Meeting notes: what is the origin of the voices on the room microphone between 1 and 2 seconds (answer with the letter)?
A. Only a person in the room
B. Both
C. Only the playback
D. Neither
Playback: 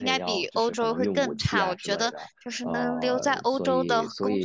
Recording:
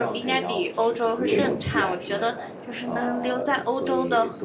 B